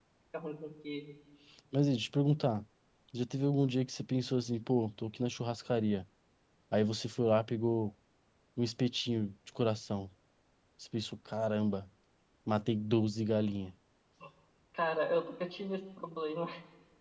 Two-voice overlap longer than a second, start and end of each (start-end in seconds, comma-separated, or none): none